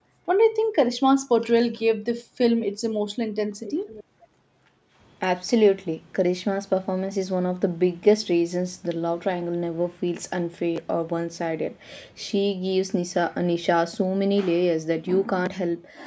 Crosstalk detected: No

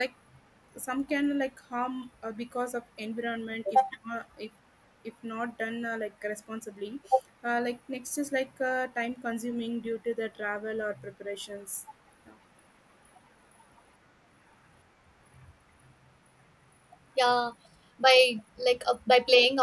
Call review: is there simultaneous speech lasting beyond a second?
No

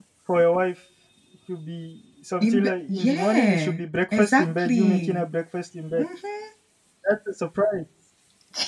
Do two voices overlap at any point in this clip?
Yes, from 2.4 s

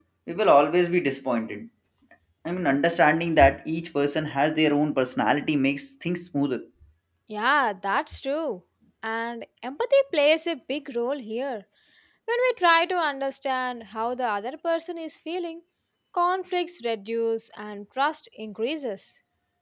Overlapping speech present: No

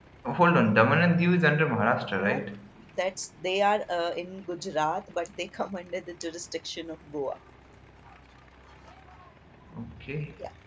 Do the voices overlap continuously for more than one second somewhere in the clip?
No

